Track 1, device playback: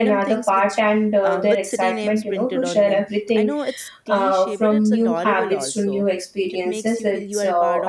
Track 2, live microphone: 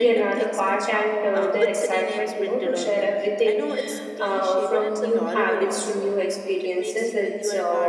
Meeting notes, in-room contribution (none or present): none